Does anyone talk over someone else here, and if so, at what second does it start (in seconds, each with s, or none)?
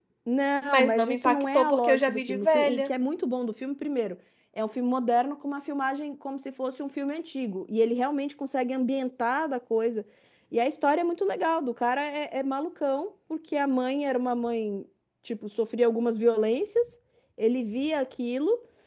0.6 s